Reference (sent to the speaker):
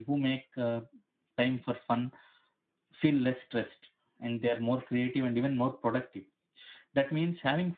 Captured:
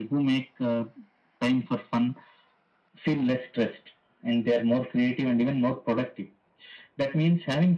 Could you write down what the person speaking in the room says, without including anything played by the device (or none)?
none